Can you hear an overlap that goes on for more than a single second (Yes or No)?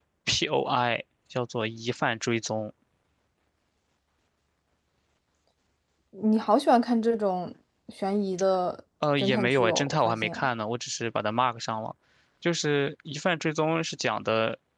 Yes